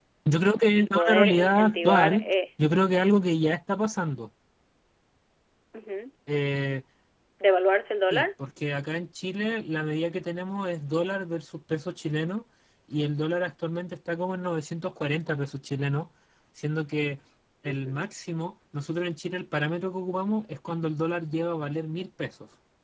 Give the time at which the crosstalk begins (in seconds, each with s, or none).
0.8 s